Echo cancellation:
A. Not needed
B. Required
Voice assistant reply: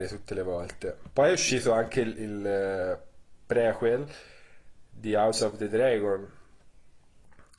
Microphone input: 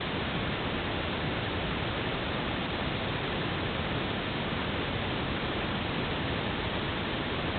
A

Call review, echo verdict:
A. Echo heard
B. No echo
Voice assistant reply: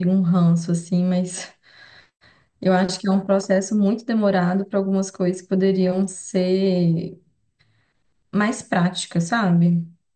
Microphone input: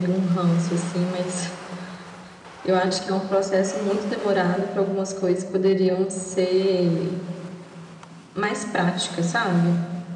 A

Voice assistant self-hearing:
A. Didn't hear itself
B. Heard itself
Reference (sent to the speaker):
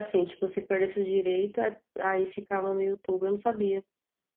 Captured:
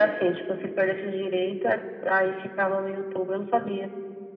B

